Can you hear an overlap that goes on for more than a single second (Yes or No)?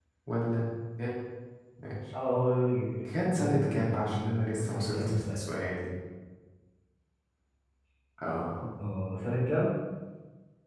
Yes